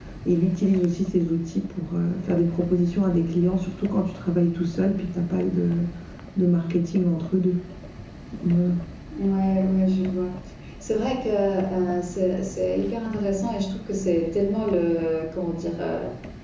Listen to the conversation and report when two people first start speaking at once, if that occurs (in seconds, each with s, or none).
none